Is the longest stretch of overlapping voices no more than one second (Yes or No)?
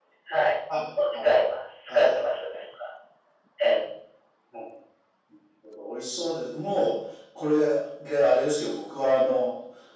Yes